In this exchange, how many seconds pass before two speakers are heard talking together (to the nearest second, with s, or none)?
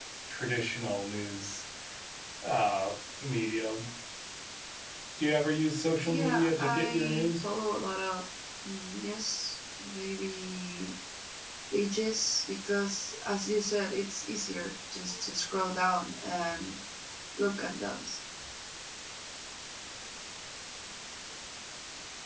6 s